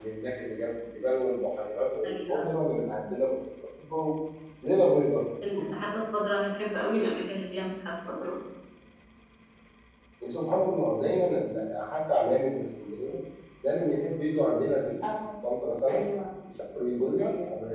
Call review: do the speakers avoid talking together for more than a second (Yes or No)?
Yes